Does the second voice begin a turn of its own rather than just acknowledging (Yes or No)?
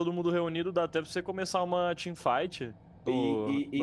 Yes